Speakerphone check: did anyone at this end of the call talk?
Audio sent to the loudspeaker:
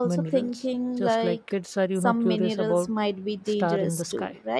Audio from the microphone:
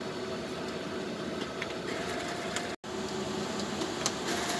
No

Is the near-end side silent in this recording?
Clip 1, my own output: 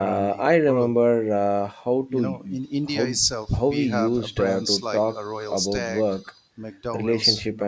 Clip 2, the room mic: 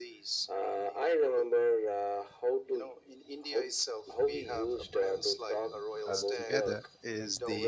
No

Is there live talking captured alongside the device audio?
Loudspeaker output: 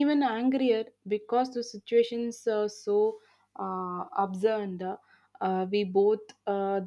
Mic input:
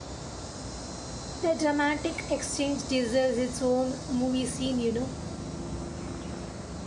Yes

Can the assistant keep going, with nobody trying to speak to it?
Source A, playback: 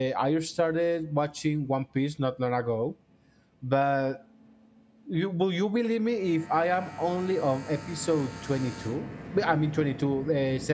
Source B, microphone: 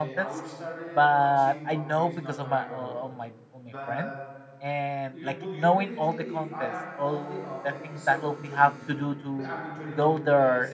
No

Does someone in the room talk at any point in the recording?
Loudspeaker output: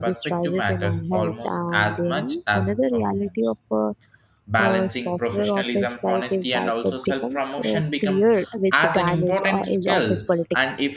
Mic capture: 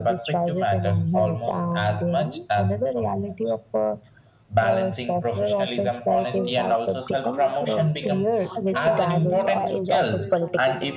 Yes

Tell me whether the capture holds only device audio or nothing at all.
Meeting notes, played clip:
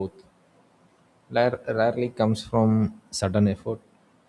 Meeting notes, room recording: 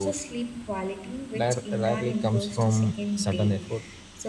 No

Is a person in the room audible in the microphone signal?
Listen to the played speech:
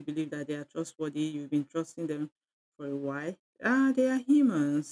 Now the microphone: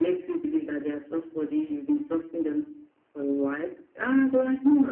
No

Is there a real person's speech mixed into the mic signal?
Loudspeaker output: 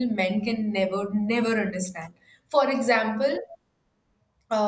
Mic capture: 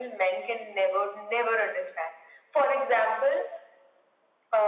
No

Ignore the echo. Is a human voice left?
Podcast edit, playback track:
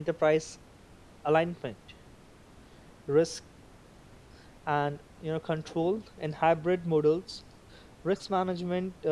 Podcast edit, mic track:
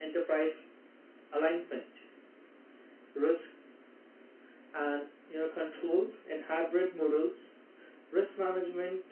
No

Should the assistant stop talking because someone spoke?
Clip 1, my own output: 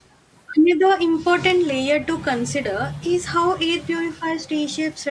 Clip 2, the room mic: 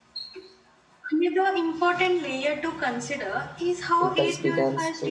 Yes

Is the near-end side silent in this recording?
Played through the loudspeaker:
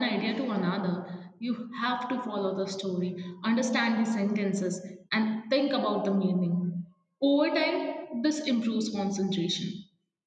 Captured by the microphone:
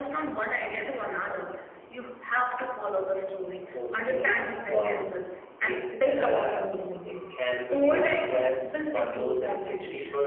No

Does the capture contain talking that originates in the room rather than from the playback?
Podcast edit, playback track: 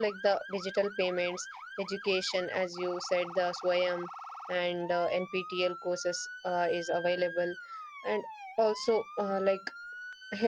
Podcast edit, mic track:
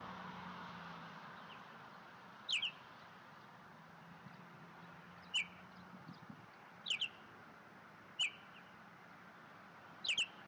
No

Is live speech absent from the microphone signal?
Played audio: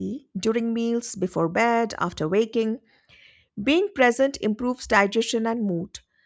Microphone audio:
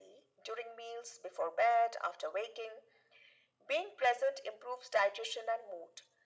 Yes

